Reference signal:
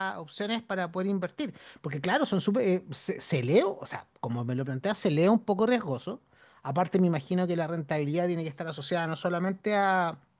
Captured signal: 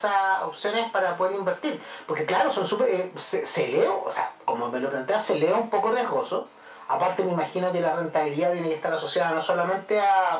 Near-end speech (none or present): none